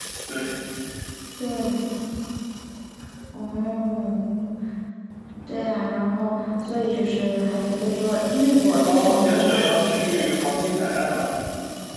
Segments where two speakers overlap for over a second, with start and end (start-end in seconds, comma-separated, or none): 8.8-10.2